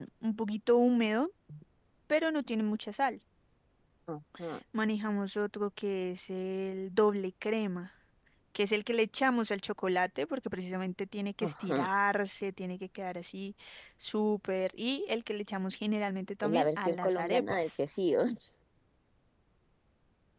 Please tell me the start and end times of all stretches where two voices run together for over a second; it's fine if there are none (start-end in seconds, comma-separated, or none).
16.4-17.7